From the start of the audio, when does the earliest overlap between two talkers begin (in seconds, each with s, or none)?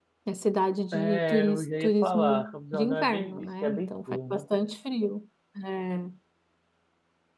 0.9 s